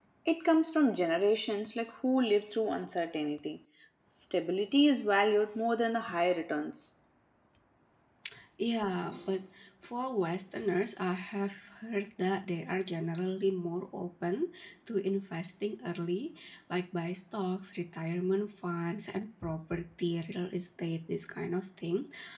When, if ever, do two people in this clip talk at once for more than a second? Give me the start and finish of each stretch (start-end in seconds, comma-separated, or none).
none